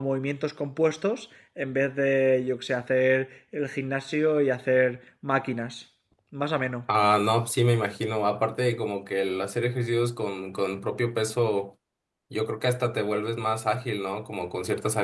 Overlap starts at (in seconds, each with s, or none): none